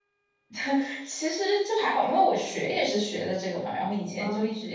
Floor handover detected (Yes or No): No